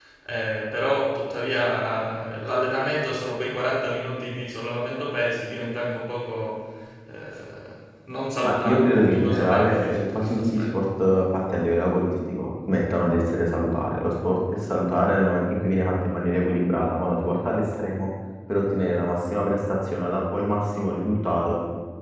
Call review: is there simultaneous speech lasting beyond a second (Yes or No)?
Yes